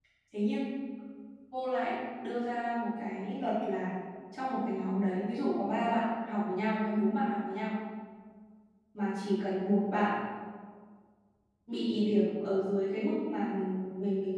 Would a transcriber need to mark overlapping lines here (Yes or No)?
No